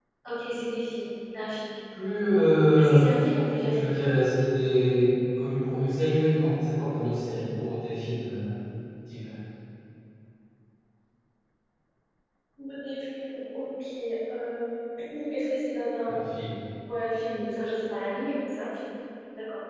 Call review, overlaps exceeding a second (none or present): none